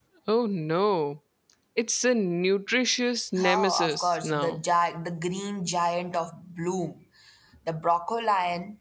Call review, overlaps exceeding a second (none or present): present